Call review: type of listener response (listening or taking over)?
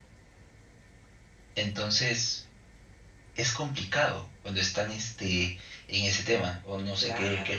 taking over